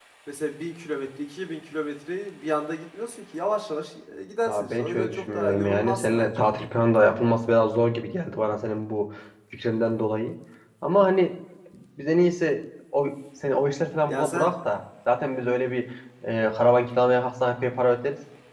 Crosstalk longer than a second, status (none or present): present